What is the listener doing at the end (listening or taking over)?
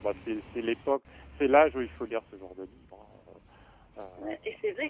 taking over